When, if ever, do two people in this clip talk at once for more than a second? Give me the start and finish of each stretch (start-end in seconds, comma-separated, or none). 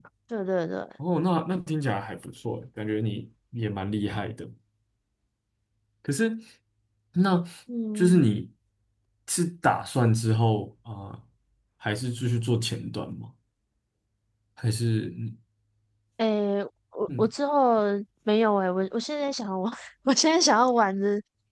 none